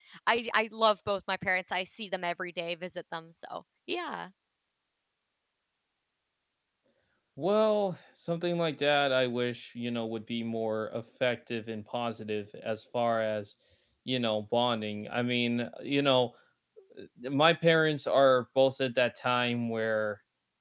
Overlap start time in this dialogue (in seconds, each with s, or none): none